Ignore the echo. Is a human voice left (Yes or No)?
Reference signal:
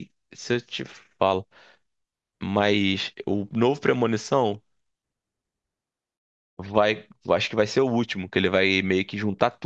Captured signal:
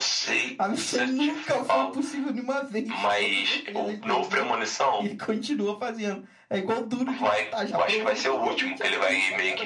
Yes